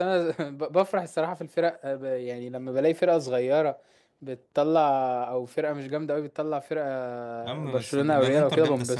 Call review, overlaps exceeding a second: present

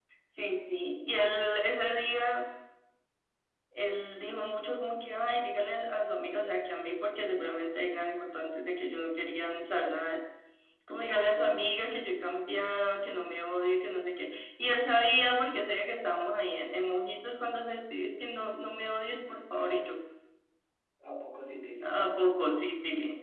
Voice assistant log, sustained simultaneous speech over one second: none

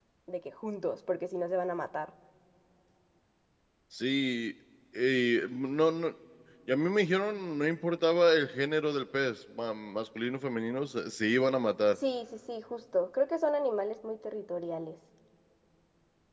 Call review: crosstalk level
none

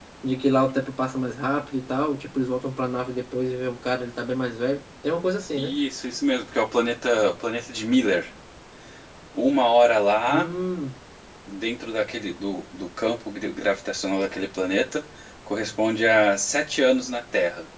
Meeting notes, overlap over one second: none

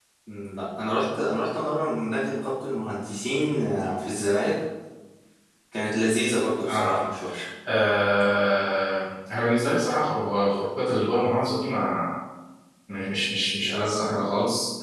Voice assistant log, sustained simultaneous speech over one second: none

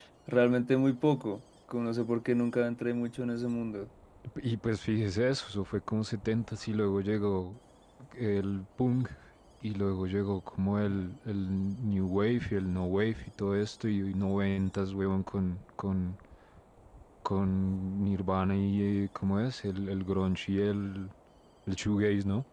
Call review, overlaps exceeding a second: none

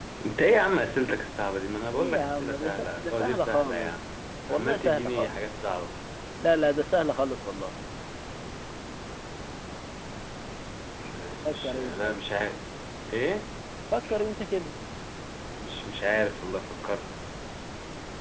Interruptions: present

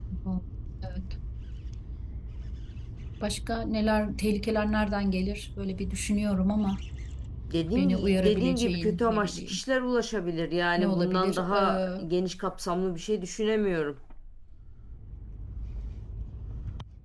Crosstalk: present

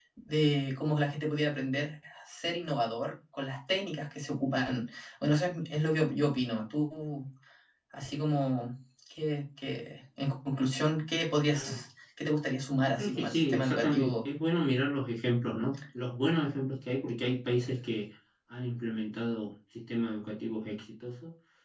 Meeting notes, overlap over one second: present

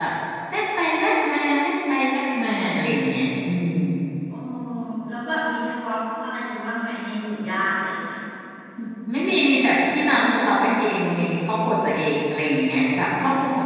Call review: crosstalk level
none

